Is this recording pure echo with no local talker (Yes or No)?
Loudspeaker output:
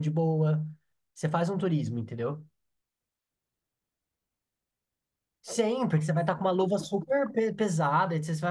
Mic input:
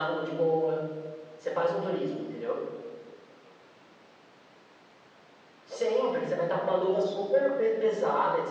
Yes